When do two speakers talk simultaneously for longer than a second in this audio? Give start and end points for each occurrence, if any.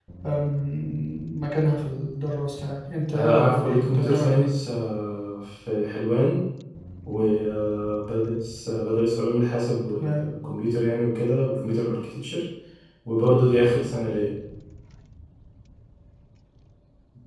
3.1-4.5

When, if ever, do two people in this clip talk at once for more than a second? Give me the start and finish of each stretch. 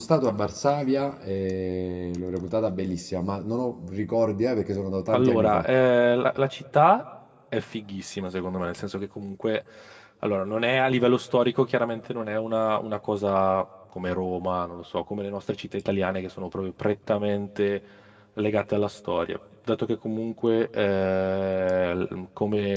none

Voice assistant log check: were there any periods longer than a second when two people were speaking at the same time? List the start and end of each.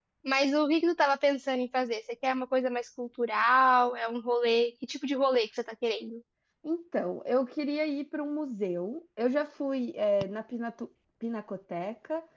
none

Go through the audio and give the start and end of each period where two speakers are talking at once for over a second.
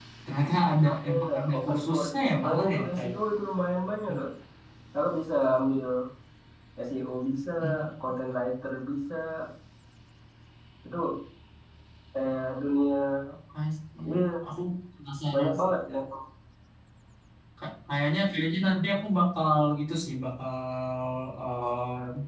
0.9-3.1

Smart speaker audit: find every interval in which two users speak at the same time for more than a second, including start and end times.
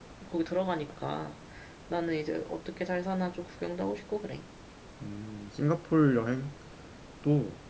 none

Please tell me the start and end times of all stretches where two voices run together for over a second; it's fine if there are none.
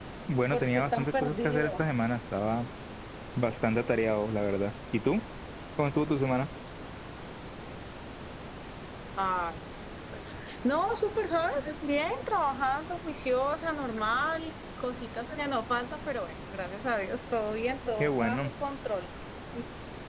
0.5-1.8

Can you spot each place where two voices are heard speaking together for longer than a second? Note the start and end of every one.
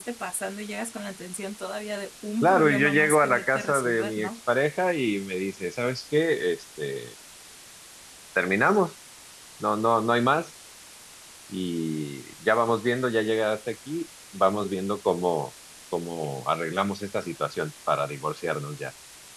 2.4-4.3

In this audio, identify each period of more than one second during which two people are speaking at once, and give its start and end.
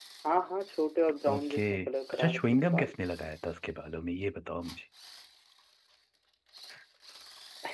1.4-2.9

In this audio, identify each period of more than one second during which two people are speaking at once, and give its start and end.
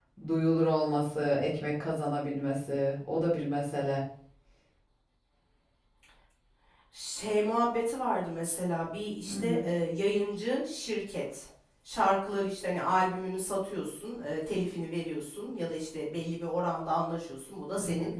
none

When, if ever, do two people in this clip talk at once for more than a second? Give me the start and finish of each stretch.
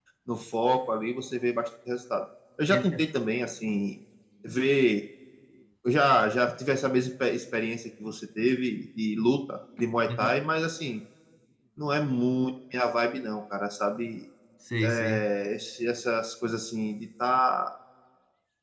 none

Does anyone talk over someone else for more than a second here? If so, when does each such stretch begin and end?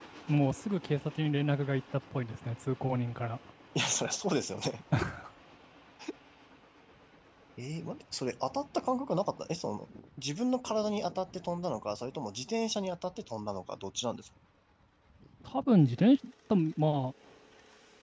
none

